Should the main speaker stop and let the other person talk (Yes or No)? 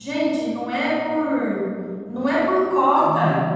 No